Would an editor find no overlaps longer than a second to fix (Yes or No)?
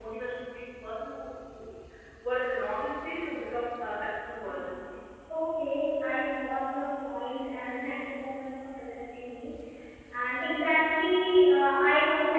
Yes